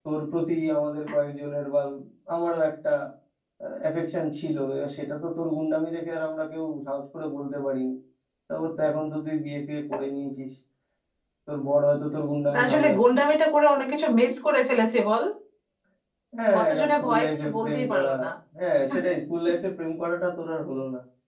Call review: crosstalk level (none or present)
present